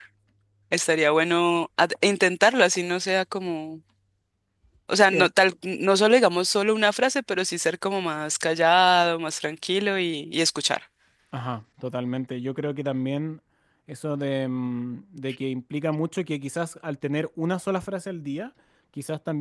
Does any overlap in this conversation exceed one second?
No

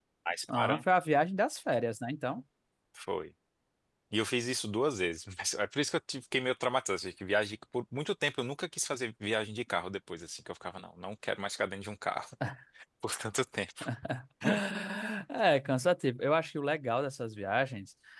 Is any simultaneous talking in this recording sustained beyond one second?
No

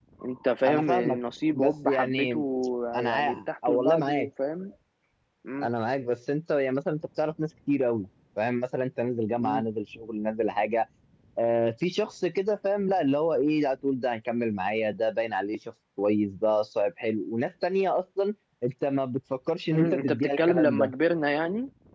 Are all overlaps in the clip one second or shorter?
No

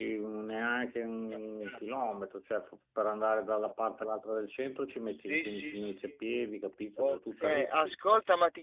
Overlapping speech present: Yes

